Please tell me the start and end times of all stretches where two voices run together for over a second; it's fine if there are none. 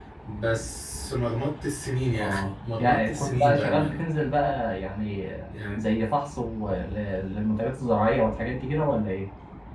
2.2-4.0

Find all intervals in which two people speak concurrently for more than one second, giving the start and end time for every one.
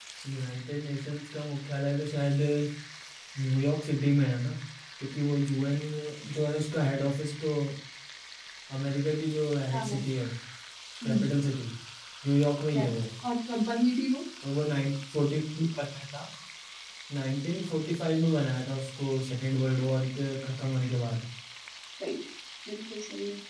none

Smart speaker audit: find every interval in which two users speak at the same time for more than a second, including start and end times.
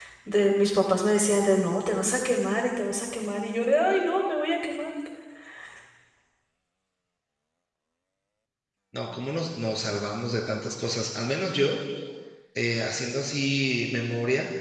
none

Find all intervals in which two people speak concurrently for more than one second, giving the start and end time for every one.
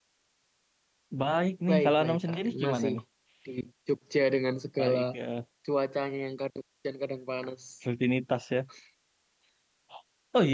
1.7-2.9

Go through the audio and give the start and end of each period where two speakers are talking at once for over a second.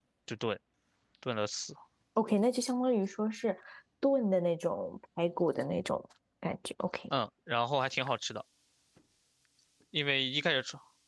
none

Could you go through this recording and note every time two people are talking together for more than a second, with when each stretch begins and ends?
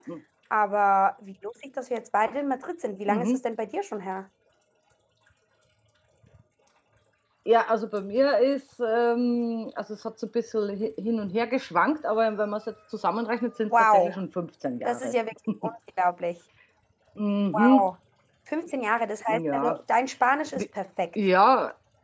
none

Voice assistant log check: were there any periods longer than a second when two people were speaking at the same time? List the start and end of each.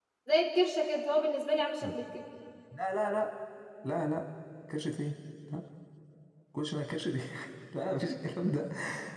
none

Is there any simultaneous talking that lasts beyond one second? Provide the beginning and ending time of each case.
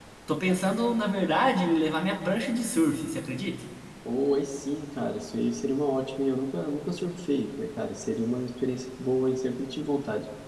none

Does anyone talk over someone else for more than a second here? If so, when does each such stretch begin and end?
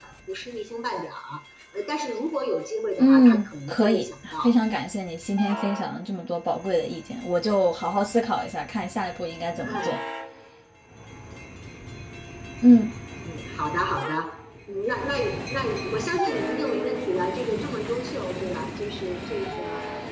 3.0-4.5

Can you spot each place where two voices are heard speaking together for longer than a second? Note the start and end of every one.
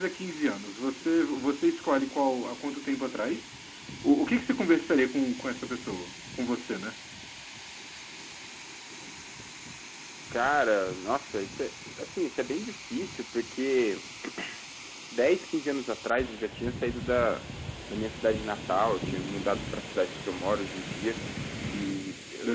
none

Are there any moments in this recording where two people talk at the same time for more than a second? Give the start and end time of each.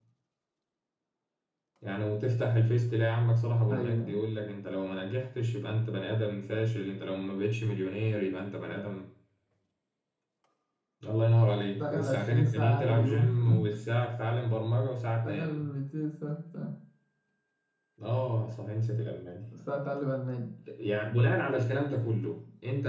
11.8-13.3

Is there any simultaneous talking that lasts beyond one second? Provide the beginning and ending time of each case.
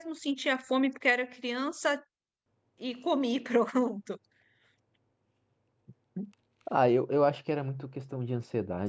none

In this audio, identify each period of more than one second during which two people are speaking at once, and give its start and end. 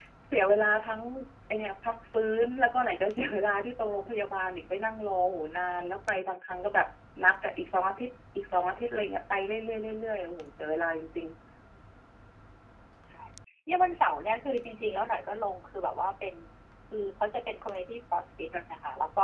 none

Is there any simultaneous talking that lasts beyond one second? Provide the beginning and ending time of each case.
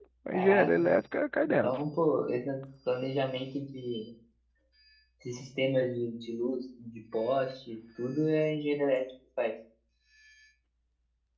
none

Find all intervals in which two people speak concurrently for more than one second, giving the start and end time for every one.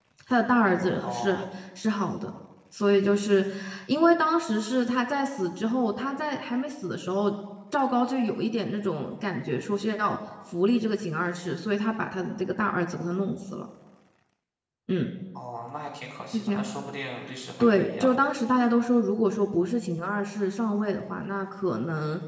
none

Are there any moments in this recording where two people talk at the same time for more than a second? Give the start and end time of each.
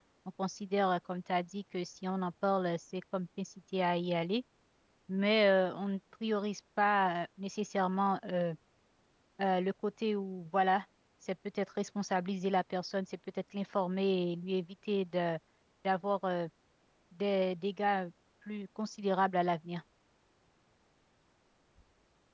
none

